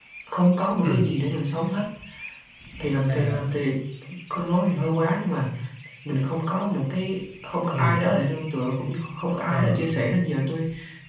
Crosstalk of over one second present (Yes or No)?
No